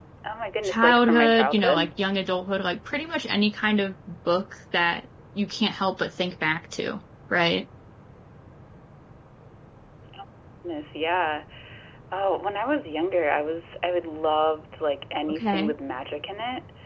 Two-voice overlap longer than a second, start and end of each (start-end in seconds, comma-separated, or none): 0.6-1.9